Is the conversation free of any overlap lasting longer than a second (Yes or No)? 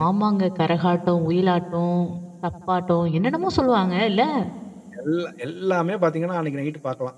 Yes